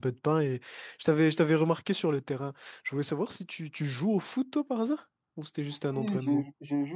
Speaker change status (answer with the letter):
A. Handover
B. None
A